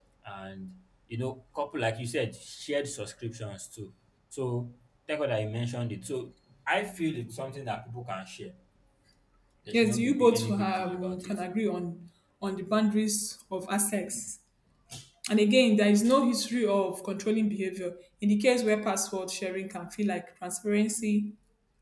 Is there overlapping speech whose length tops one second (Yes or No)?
Yes